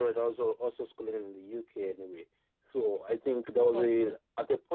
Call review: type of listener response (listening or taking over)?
listening